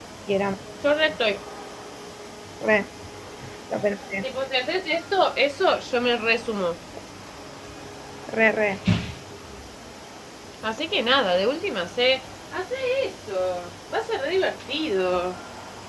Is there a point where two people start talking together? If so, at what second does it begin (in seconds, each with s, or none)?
none